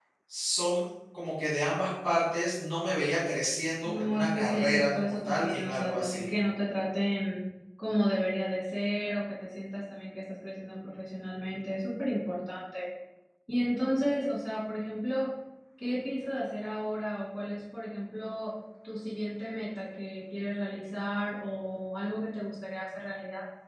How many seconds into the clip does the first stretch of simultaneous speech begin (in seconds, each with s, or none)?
3.9 s